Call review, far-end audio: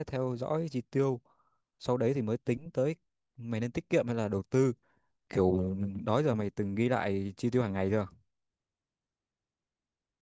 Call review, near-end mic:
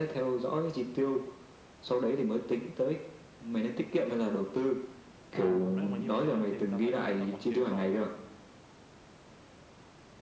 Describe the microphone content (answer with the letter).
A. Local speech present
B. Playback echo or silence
A